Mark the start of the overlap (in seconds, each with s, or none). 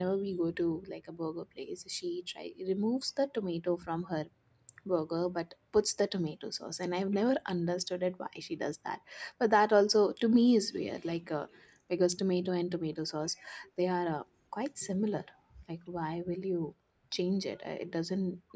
none